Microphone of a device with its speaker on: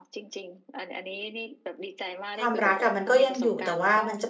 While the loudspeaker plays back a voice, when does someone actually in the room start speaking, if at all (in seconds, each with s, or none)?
2.3 s